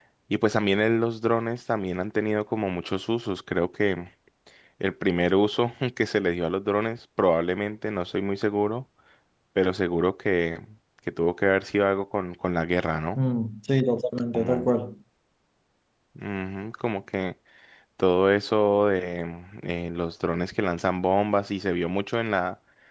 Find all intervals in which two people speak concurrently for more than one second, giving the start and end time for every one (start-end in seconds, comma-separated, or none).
none